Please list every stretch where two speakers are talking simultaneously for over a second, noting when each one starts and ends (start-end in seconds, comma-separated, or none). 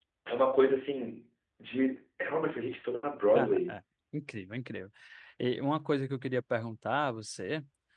none